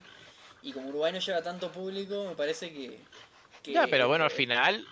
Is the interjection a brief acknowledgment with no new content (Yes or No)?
No